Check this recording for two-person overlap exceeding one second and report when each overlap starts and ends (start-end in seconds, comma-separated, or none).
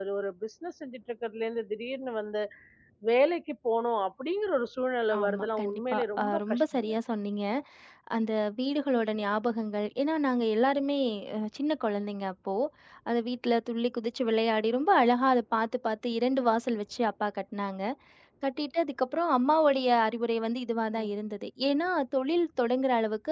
5.2-6.9